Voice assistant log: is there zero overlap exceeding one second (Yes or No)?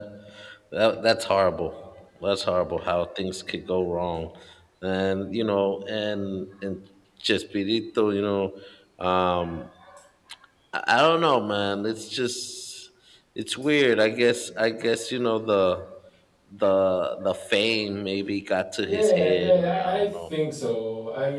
No